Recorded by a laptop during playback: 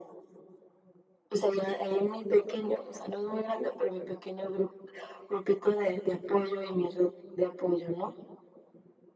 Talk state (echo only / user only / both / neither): echo only